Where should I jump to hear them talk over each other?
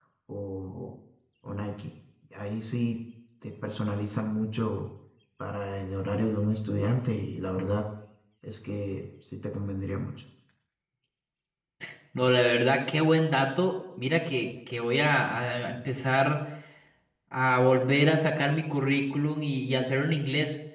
none

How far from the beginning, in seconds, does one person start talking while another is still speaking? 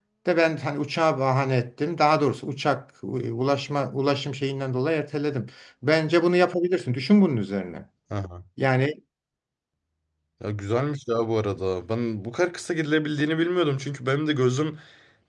none

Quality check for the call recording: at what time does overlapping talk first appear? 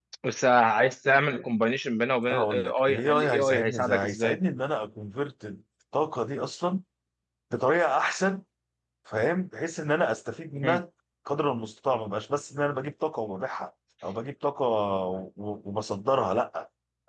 2.3 s

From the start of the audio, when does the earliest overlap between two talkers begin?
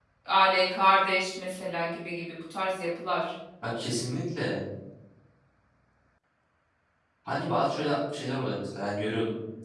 none

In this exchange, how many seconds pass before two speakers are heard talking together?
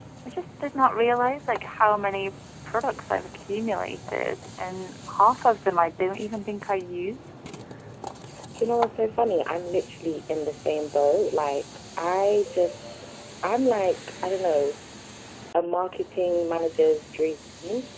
none

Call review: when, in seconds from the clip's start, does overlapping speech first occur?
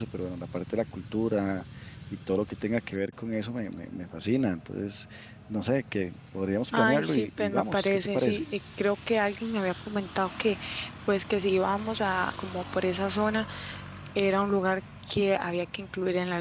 6.7 s

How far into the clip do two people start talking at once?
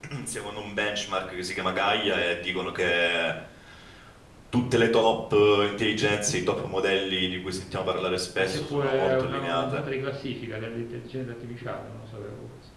8.4 s

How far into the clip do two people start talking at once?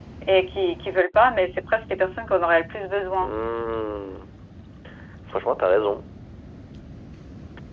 none

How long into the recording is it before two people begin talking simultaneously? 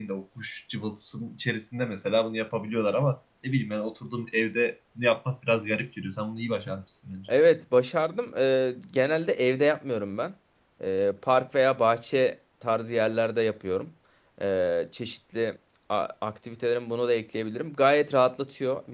none

